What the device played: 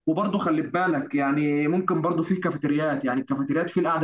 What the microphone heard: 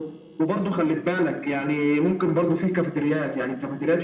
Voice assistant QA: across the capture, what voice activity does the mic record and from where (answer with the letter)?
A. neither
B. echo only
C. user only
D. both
B